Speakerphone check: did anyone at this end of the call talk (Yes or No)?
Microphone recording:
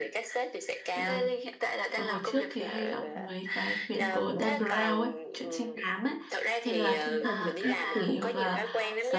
Yes